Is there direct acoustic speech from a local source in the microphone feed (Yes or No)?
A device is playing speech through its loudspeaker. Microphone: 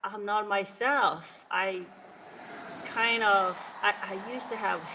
Yes